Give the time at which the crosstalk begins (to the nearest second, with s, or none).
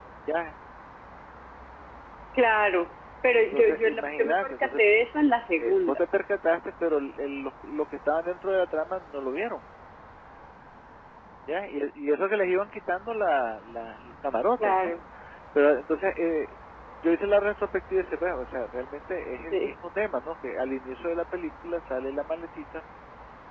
3 s